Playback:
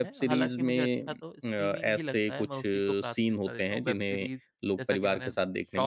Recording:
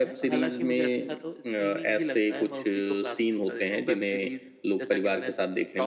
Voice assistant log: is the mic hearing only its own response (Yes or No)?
Yes